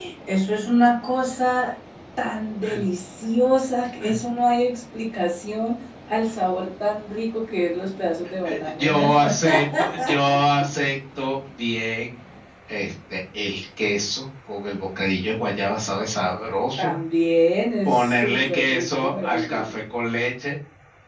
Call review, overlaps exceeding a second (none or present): present